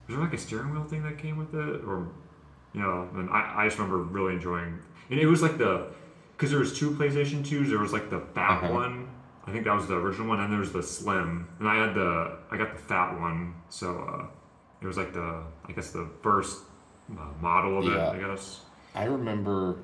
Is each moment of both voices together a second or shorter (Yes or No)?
Yes